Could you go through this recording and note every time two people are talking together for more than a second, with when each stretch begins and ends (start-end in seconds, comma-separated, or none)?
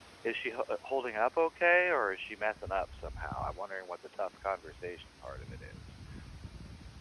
none